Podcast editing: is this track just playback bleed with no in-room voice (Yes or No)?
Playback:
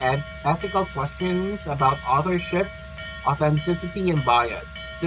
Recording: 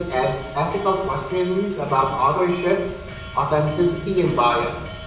Yes